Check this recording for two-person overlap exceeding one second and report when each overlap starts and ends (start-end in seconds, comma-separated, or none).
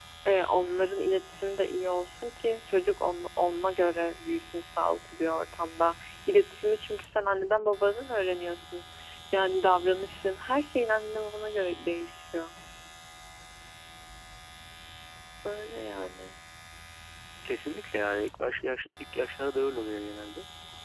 none